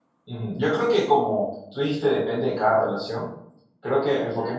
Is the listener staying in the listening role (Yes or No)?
Yes